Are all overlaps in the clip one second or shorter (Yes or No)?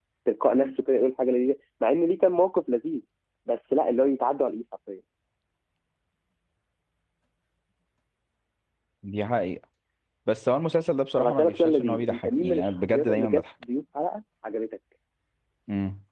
No